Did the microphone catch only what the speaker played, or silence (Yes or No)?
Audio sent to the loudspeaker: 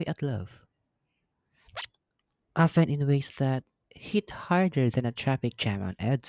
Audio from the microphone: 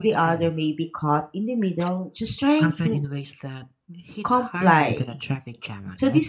No